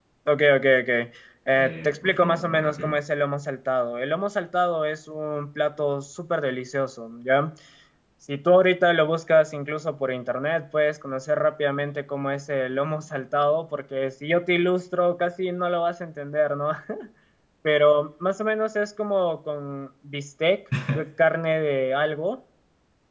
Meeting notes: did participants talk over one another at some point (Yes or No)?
Yes